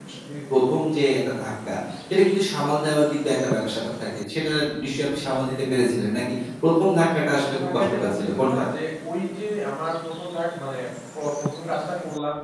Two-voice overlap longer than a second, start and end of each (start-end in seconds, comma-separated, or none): 7.0-8.6